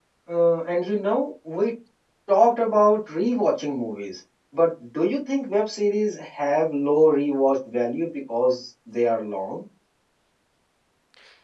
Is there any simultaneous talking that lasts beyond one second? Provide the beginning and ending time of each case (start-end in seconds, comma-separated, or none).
none